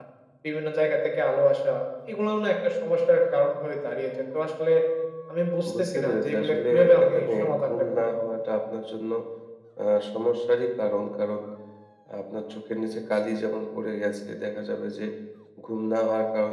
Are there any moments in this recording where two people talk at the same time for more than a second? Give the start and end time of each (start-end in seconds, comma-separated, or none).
5.8-8.1